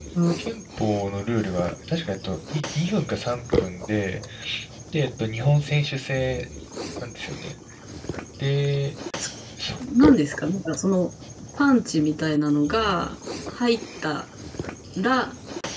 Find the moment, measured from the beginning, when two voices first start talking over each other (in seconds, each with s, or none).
none